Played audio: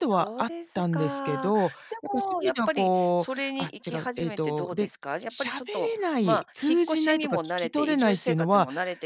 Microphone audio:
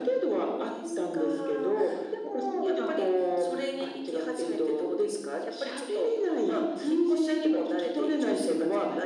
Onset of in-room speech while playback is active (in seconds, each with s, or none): none